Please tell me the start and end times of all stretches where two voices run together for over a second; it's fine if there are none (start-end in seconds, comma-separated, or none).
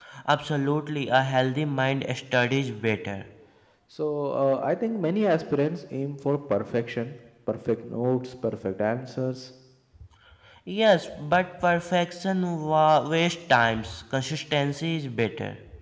none